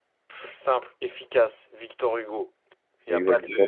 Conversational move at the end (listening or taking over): taking over